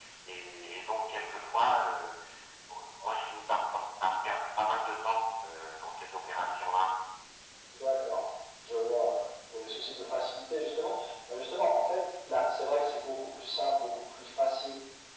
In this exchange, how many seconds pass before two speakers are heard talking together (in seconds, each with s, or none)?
none